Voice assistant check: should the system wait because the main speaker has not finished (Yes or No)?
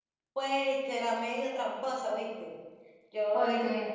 Yes